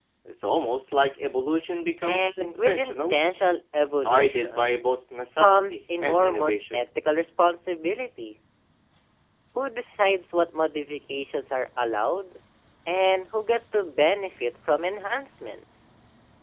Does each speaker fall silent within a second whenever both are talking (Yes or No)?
No